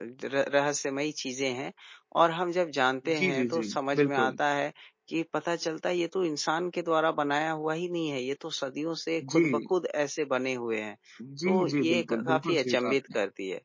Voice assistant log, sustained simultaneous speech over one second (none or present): present